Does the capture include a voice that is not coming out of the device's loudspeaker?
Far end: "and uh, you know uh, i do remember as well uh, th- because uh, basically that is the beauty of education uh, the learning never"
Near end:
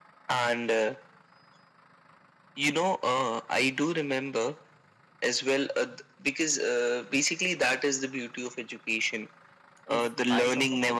Yes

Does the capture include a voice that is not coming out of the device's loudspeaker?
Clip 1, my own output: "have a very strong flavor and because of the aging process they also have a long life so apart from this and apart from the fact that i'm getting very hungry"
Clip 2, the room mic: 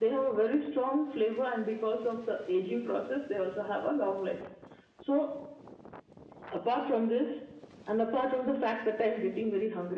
No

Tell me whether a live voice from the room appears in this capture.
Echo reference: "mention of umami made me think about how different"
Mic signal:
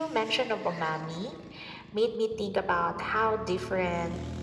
No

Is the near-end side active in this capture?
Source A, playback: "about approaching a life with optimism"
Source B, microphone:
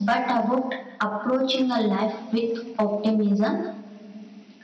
No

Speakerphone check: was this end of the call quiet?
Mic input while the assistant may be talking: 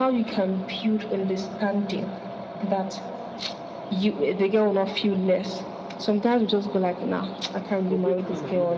No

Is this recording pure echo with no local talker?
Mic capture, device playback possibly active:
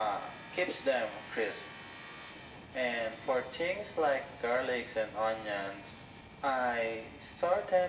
Yes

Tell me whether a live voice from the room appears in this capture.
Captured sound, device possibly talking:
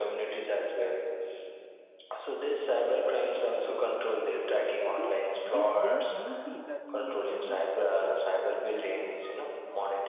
Yes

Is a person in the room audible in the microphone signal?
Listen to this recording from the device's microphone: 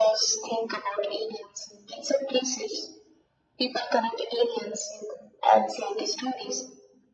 No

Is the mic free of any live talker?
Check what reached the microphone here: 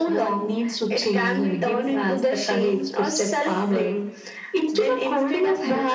Yes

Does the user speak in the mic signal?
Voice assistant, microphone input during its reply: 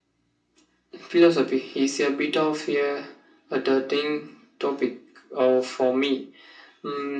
No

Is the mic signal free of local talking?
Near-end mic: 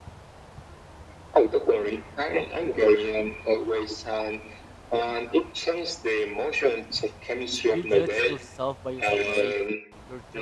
No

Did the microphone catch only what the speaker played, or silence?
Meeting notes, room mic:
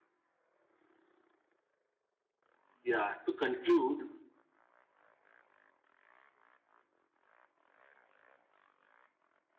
No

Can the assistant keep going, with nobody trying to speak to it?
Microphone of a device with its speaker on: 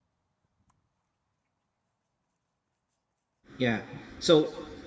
No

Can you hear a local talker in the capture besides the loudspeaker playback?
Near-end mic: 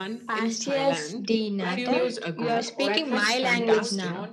Yes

